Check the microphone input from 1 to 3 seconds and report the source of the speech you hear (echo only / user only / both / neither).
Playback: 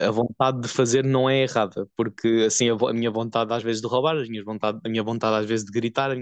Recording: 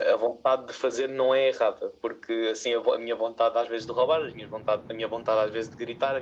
echo only